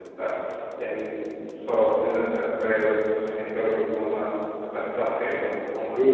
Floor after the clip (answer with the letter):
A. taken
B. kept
A